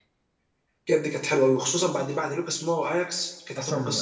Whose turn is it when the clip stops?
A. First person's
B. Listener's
B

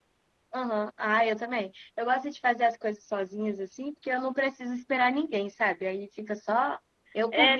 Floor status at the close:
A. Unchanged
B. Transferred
B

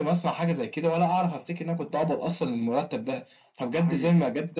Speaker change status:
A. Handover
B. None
B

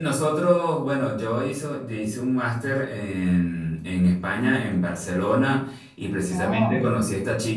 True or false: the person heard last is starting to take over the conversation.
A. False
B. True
A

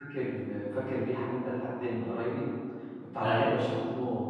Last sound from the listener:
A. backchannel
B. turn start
A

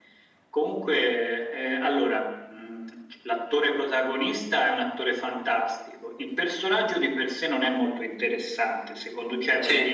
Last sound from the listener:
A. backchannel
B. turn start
A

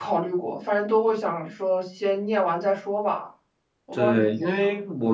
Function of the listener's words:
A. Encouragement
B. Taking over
B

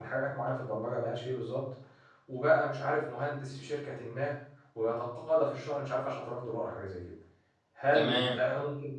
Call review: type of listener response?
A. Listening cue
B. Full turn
A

